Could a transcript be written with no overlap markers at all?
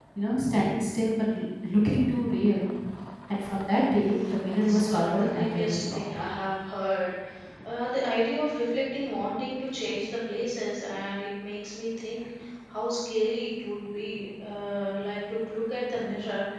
No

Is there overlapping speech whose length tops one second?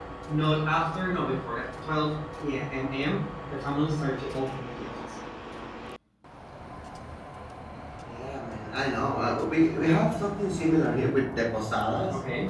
No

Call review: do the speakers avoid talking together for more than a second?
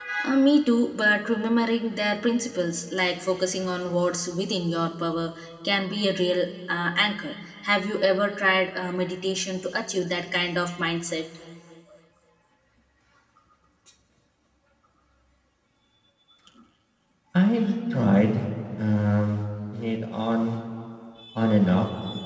Yes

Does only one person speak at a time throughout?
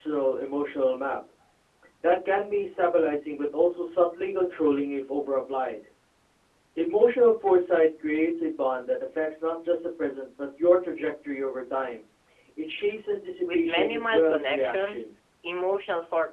No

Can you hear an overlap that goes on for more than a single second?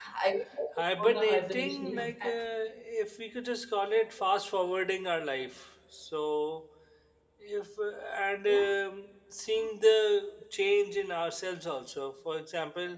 Yes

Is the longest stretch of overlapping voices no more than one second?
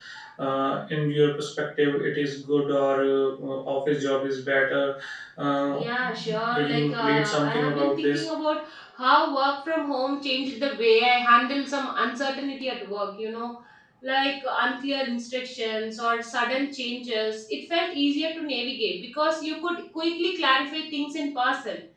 No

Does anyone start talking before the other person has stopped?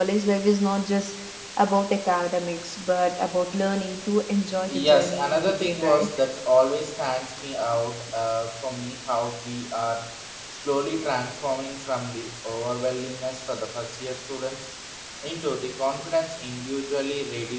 Yes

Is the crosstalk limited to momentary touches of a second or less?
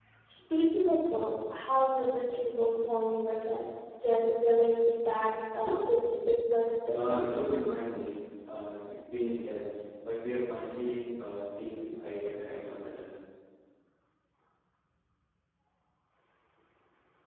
Yes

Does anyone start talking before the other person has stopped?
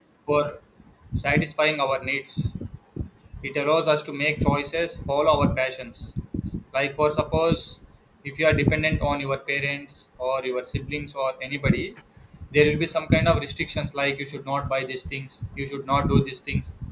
No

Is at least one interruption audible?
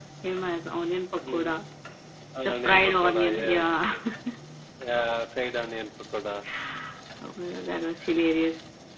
Yes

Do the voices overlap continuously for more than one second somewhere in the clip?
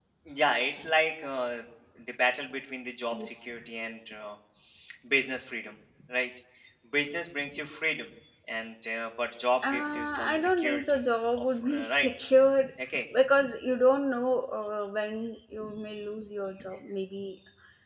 Yes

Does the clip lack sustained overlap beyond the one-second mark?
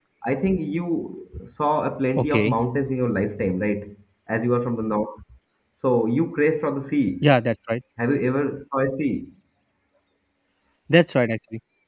Yes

